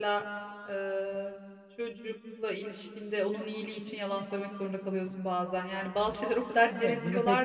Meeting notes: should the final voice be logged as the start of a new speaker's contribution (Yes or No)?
Yes